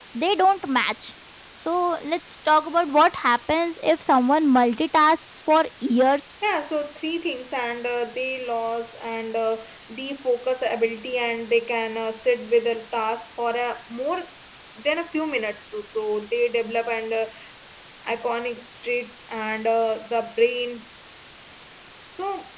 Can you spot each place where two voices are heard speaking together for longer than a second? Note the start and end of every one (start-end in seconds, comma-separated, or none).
none